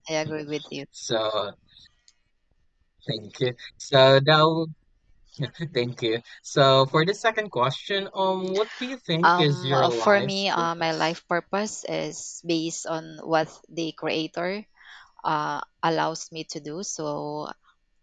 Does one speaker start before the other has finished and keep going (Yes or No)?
Yes